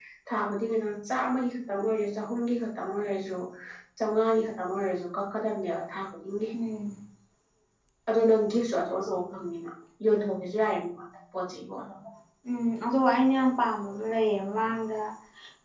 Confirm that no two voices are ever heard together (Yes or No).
Yes